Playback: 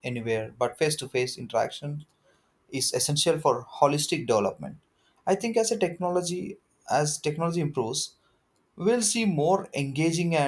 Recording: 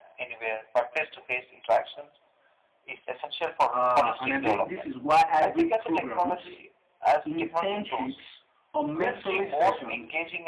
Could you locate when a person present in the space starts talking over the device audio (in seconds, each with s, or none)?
3.7 s